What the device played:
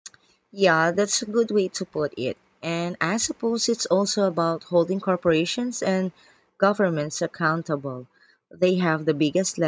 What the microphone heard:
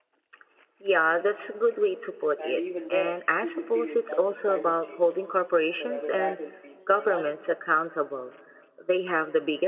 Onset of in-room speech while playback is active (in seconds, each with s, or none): 2.4 s